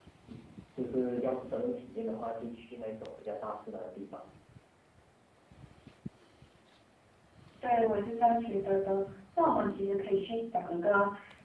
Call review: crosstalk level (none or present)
none